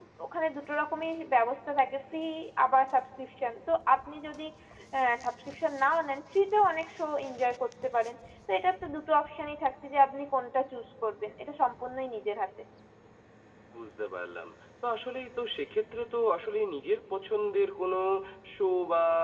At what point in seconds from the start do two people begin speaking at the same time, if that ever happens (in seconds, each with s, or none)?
none